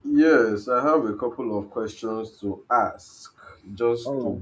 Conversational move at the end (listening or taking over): listening